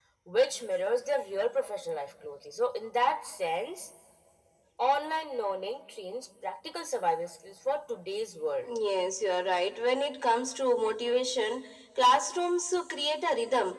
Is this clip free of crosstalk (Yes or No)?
Yes